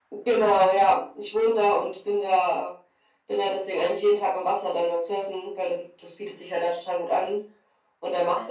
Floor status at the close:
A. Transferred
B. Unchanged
B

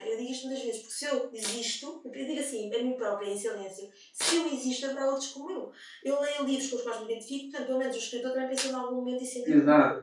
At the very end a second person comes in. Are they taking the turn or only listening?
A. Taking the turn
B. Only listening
A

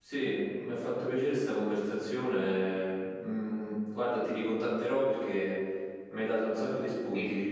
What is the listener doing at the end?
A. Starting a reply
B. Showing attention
A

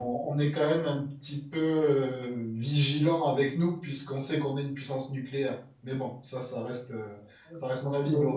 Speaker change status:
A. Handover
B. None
B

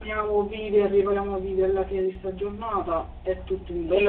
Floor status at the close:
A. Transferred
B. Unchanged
A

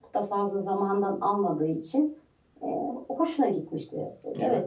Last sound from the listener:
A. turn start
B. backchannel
A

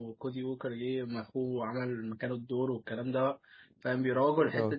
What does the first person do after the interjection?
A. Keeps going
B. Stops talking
A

